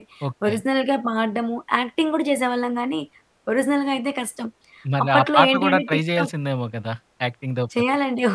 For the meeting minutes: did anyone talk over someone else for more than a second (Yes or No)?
Yes